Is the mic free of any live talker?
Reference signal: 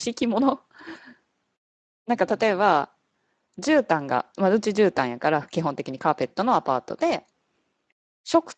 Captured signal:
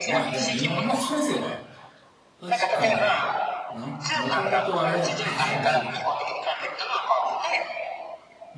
No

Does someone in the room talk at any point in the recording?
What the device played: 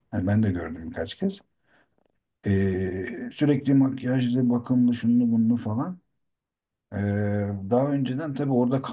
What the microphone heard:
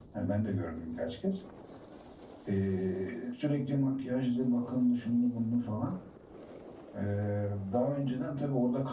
No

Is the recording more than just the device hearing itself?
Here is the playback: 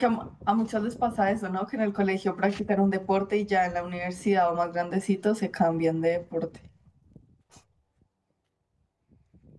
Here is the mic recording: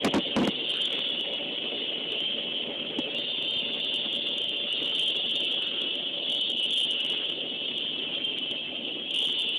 No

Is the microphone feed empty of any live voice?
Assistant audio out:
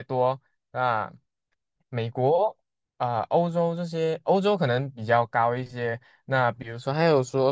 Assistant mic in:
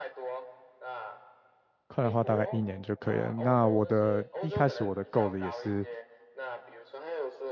No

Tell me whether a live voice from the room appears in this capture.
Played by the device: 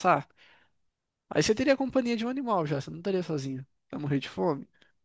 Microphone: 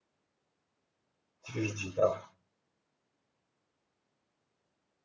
Yes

